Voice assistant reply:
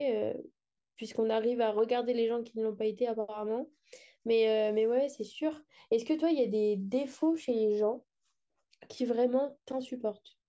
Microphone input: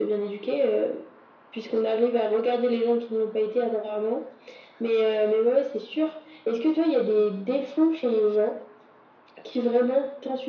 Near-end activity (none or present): none